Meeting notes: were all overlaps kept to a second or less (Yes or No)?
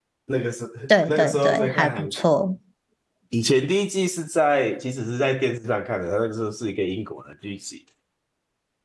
No